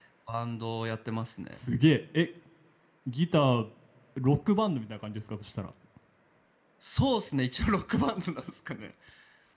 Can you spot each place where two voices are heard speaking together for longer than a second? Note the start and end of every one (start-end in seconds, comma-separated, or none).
none